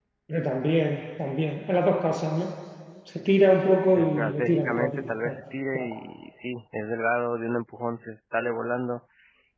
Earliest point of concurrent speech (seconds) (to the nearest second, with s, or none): 4 s